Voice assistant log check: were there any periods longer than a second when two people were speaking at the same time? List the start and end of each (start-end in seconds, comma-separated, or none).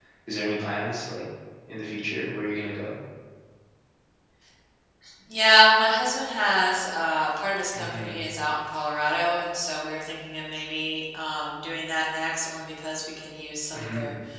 none